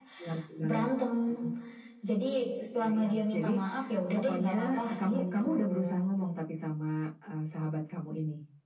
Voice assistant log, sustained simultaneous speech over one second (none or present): present